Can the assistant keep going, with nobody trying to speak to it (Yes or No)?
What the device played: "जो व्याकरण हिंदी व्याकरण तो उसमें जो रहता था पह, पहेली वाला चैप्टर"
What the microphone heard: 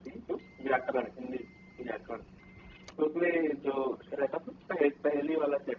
Yes